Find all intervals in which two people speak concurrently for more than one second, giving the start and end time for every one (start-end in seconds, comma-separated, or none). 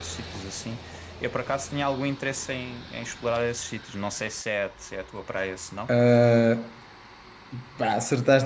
none